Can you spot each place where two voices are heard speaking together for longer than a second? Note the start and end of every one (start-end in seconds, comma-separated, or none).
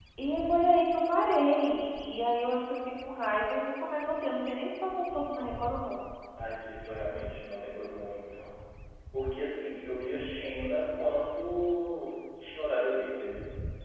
none